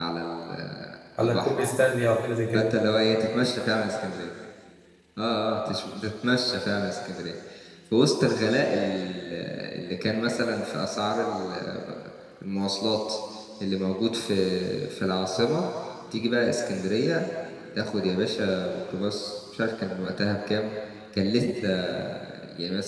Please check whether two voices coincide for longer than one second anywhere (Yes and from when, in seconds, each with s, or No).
No